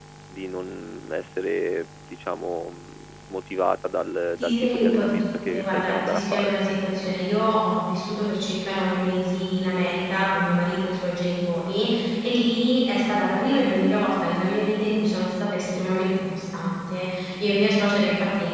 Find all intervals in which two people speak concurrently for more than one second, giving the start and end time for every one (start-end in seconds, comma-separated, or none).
4.4-6.5